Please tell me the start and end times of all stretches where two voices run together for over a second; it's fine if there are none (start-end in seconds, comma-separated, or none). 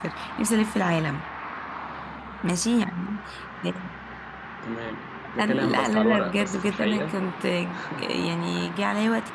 5.4-7.1